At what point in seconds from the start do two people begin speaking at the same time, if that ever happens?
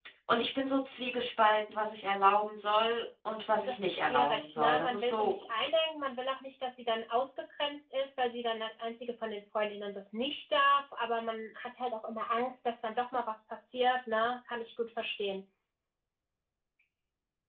4 s

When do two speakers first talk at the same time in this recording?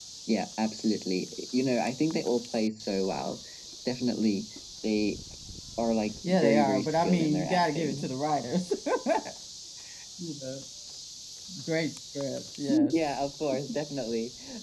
6 s

